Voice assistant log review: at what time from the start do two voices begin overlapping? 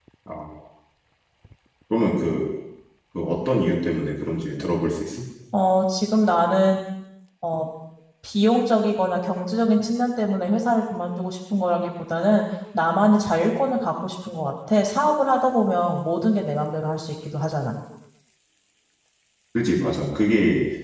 none

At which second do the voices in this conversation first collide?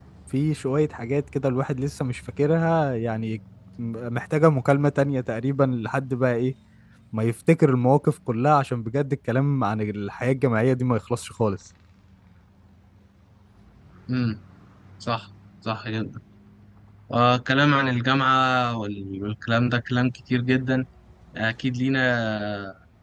none

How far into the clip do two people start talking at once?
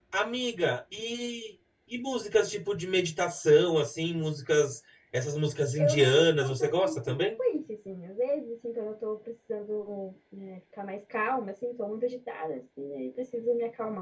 6 s

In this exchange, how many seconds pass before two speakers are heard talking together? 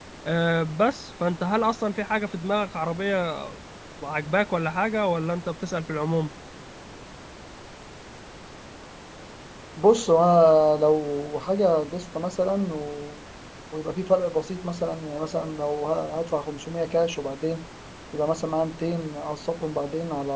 none

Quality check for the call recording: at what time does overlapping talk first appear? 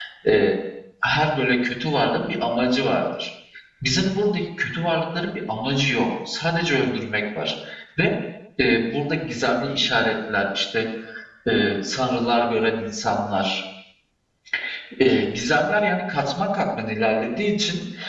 none

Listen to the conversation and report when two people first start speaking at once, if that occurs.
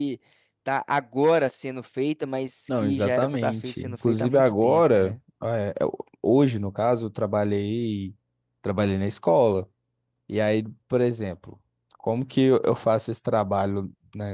3 s

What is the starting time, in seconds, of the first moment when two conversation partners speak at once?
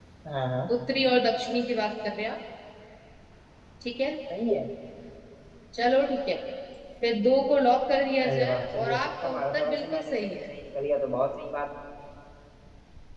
8 s

